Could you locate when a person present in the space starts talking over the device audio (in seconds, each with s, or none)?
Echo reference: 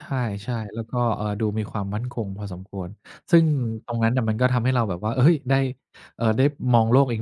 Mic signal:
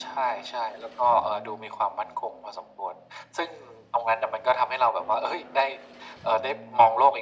none